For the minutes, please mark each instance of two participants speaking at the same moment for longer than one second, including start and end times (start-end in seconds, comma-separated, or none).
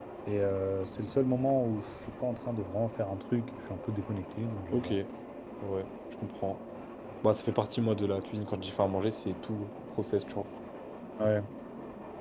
none